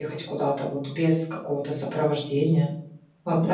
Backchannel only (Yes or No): No